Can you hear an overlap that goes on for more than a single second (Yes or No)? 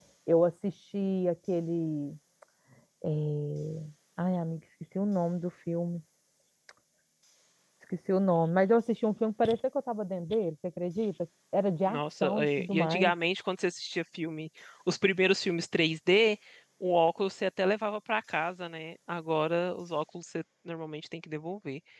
Yes